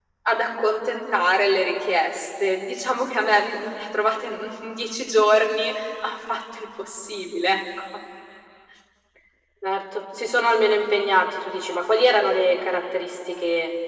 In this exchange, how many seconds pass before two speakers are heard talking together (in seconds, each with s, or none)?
none